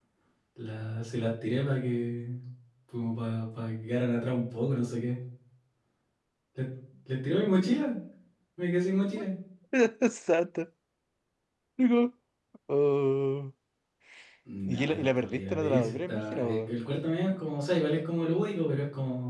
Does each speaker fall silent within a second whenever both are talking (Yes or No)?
No